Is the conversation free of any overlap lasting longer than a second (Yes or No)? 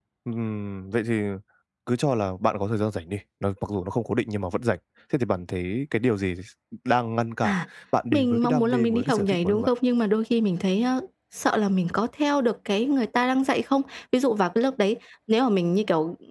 No